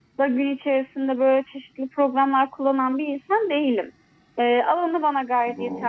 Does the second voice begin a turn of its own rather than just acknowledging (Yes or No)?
No